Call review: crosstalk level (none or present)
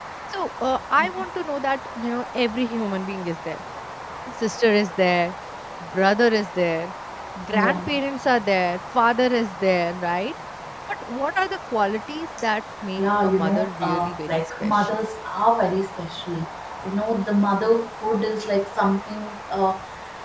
present